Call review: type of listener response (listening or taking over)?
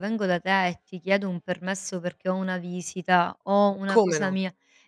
listening